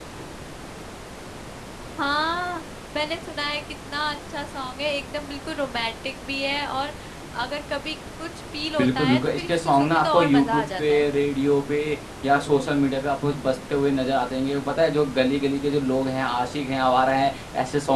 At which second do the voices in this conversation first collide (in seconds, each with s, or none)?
8.8 s